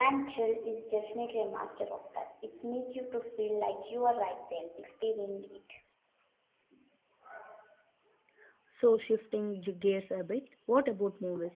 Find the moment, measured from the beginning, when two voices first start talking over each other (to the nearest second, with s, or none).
none